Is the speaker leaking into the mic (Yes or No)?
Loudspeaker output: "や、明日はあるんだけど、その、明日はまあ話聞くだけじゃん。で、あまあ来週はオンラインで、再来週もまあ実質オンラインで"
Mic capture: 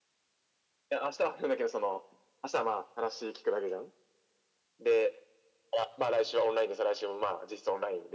Yes